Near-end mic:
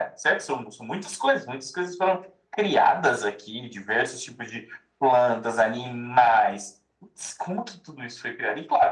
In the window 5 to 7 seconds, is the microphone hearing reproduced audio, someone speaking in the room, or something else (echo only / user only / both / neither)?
echo only